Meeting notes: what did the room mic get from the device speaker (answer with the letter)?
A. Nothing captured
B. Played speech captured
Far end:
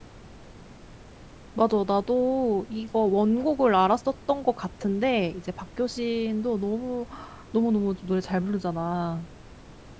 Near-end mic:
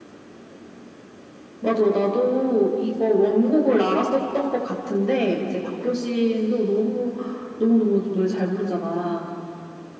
B